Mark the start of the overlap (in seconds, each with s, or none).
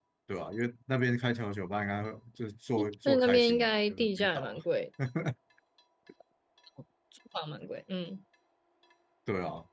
3.0 s